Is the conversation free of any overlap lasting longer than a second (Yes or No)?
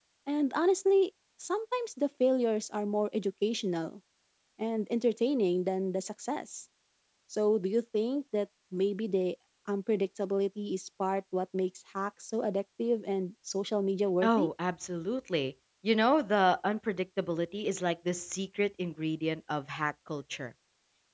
Yes